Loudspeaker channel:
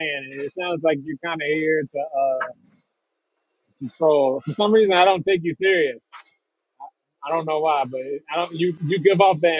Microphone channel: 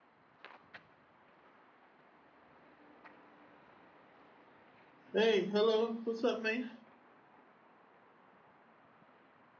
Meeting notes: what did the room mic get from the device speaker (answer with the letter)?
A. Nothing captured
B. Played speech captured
A